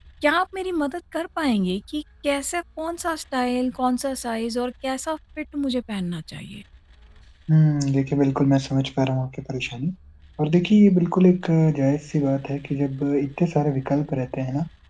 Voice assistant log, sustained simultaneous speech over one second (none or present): none